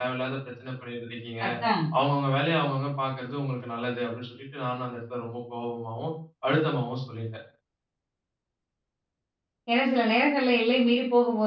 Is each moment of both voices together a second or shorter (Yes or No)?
Yes